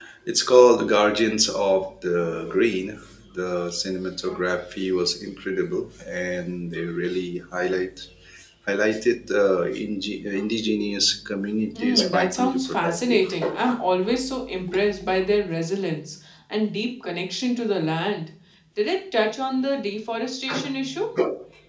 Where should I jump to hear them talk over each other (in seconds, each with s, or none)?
11.8 s